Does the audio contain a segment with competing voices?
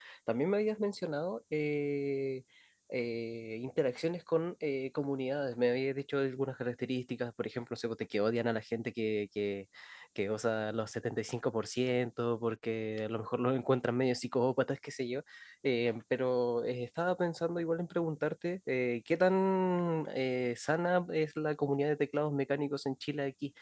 No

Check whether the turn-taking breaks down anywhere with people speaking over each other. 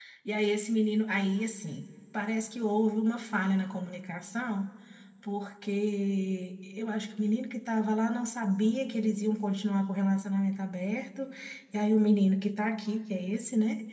No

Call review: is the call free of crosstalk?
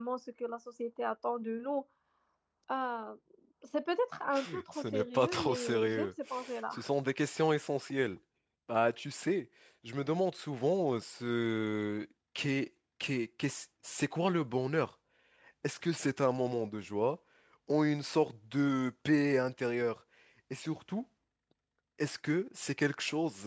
No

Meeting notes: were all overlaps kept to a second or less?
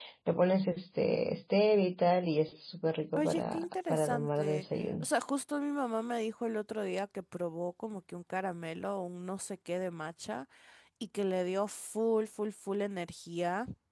No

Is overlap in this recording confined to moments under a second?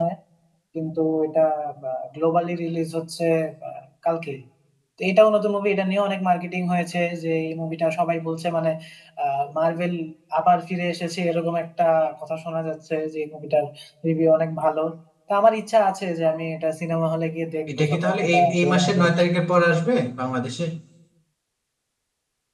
No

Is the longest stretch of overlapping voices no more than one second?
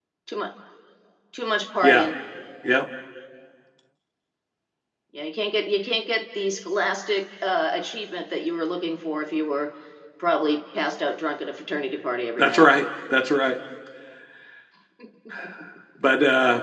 Yes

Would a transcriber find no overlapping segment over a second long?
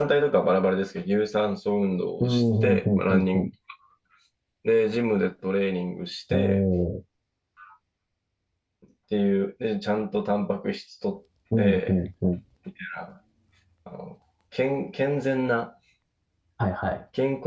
No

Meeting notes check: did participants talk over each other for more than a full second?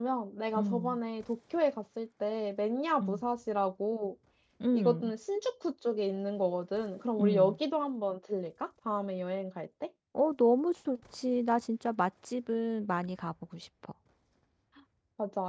No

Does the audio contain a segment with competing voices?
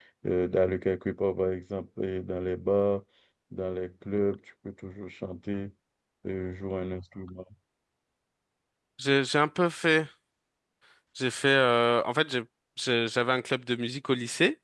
No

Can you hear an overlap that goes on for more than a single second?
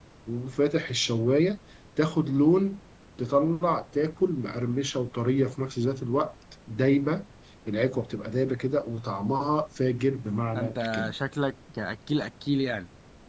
No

